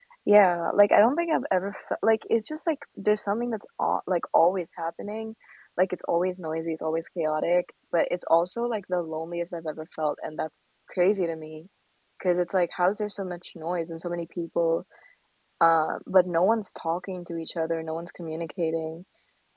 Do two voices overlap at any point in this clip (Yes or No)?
No